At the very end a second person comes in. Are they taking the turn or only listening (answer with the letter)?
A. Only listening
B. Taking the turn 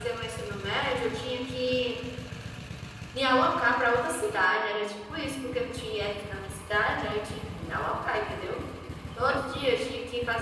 A